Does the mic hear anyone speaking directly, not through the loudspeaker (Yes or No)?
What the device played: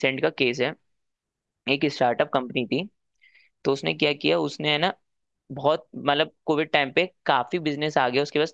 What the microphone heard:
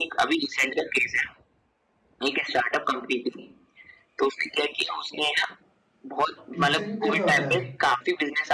Yes